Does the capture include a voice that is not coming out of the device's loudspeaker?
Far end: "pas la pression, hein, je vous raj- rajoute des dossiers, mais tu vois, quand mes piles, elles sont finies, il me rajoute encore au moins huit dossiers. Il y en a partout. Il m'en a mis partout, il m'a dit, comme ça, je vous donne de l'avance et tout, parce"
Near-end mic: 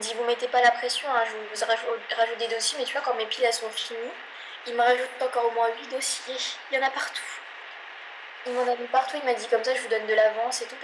No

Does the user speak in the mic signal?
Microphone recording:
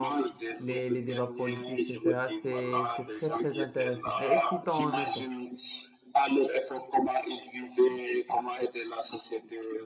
Yes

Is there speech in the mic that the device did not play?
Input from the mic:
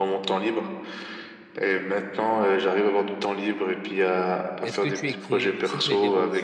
Yes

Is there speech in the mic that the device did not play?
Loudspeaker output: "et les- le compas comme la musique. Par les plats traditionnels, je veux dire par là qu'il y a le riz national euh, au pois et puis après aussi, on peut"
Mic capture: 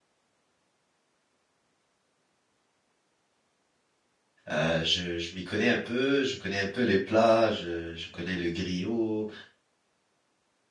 Yes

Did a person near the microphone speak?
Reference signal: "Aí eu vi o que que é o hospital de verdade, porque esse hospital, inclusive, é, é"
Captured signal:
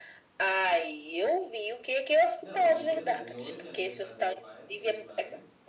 Yes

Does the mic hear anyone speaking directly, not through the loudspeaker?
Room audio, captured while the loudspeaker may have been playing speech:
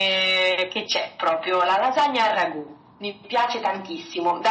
No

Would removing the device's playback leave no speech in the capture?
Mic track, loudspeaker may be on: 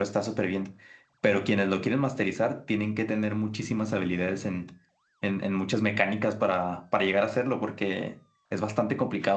No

